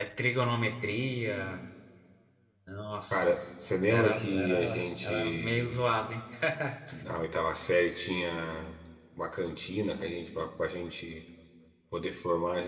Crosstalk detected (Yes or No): Yes